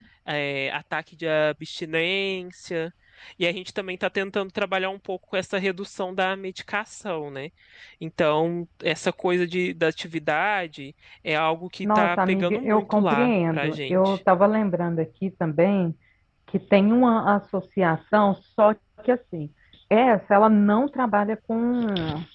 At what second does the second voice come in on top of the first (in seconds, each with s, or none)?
11.8 s